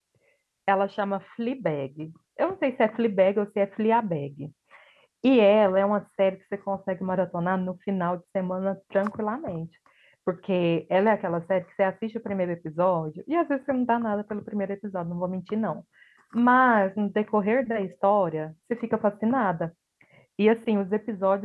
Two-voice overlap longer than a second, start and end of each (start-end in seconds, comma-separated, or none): none